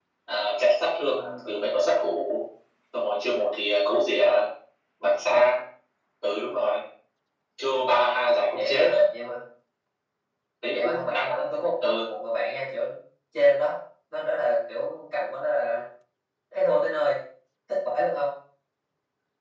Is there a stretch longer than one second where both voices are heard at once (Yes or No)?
Yes